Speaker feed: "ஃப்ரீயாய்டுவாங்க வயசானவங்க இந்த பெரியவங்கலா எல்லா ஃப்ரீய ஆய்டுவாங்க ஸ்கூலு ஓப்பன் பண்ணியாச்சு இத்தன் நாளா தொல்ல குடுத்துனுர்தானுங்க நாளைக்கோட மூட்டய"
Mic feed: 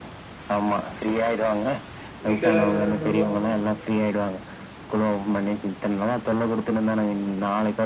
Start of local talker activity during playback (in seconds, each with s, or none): 2.3 s